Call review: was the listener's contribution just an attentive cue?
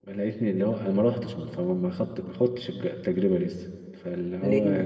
Yes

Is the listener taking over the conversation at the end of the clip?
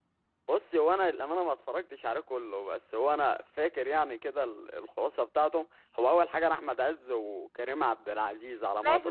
Yes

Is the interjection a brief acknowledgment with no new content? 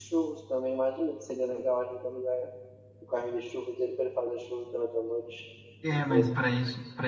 No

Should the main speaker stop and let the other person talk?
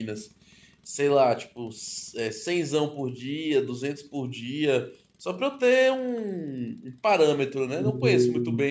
Yes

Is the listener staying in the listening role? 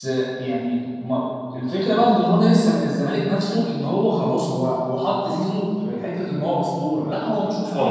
No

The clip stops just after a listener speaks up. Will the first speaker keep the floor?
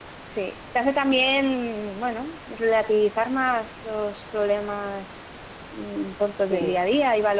Yes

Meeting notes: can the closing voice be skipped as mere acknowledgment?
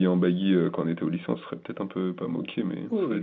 No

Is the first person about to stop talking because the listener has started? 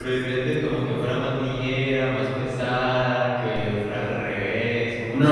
Yes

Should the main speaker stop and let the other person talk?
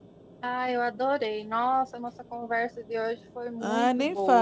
Yes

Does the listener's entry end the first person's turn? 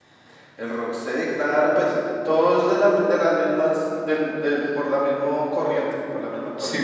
Yes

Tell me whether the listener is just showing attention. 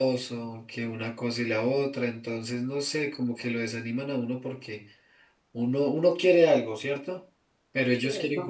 Yes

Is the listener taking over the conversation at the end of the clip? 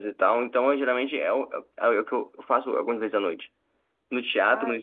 No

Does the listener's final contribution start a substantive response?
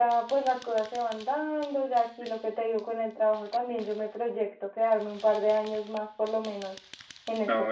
Yes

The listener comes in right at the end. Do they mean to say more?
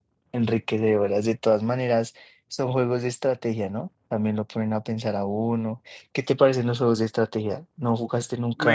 Yes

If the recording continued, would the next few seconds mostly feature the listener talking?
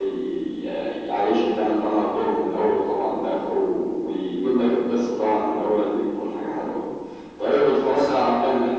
No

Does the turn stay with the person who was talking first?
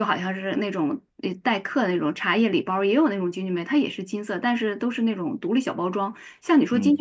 Yes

